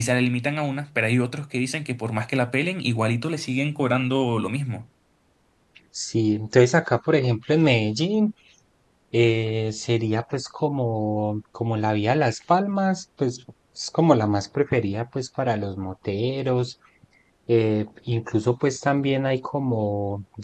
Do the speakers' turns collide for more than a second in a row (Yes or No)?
No